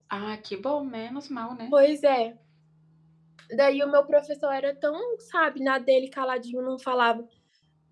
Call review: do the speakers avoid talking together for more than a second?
Yes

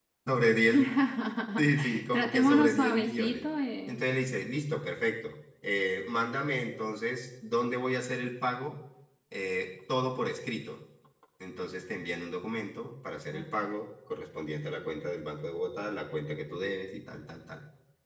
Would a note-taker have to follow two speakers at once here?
Yes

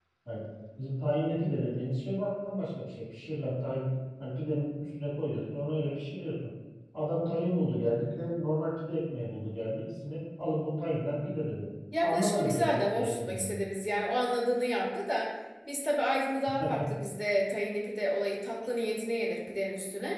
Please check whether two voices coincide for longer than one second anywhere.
Yes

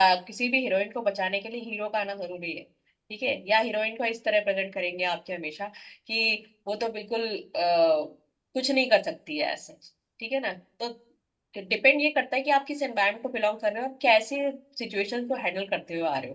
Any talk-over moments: No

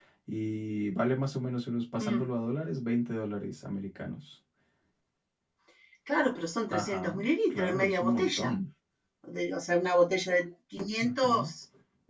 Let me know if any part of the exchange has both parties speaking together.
Yes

